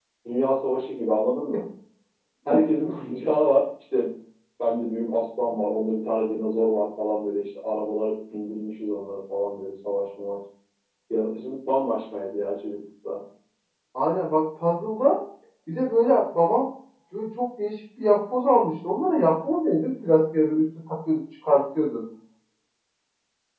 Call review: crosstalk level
none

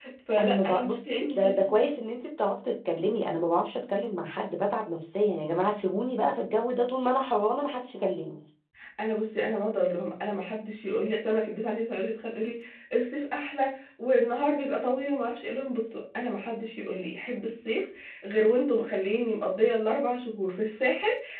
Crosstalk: present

